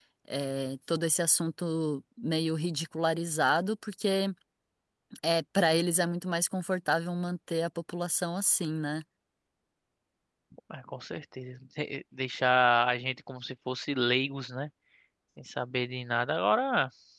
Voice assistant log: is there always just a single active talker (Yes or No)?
Yes